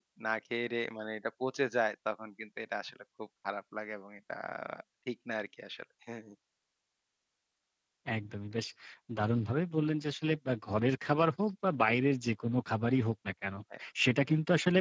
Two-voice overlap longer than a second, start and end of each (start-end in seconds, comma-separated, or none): none